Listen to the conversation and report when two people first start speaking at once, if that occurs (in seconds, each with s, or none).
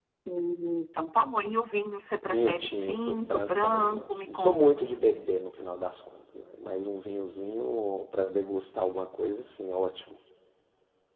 2.2 s